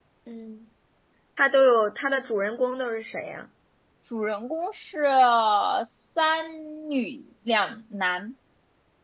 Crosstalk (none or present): none